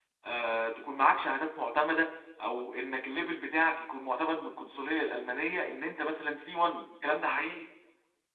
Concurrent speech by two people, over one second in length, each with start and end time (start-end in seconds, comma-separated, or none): none